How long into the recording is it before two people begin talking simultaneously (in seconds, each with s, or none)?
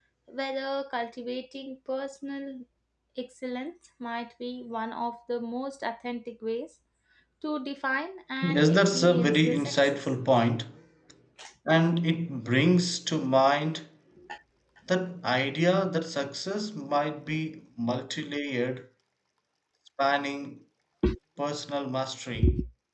8.4 s